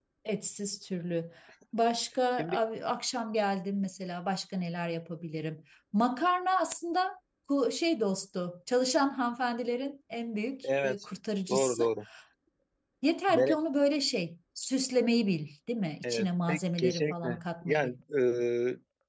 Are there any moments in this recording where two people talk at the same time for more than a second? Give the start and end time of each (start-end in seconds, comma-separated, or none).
16.0-17.9